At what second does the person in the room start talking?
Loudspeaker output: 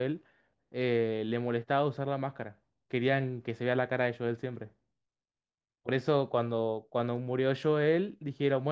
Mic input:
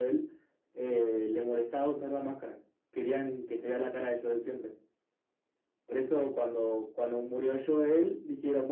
none

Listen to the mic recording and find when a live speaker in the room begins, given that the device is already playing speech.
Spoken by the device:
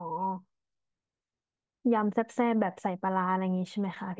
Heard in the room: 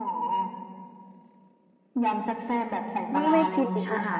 3.1 s

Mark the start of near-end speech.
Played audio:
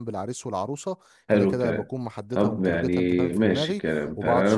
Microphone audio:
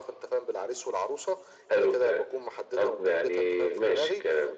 none

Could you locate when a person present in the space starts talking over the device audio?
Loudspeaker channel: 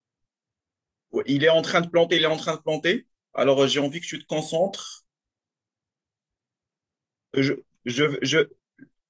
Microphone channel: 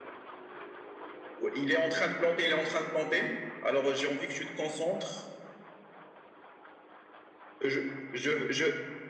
none

